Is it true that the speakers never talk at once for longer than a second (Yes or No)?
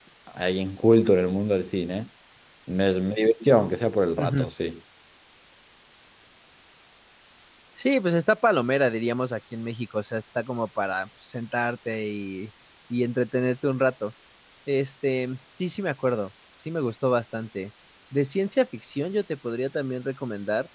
Yes